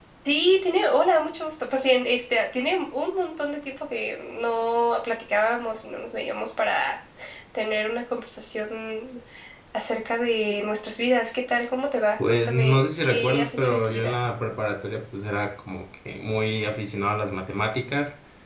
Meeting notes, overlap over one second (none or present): present